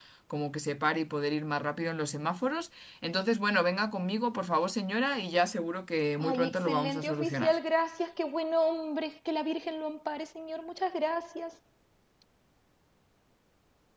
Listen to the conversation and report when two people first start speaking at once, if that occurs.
6 s

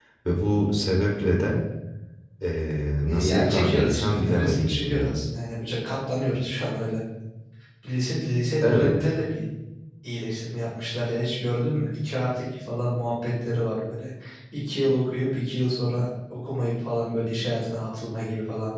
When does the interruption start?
3 s

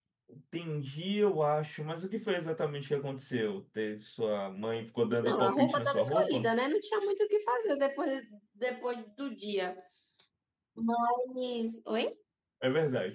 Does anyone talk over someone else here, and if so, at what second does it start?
5 s

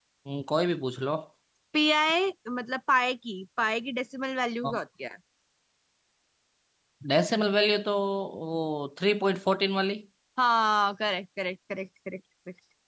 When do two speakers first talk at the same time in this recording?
none

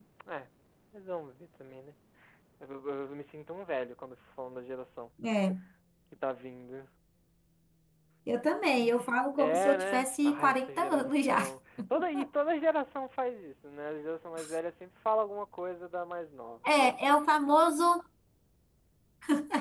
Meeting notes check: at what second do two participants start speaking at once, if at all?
9 s

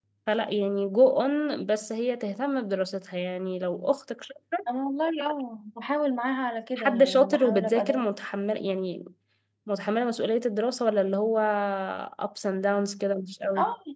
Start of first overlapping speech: 7 s

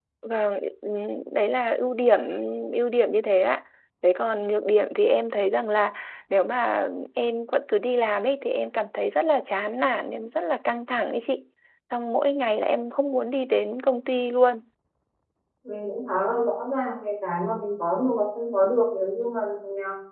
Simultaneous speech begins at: none

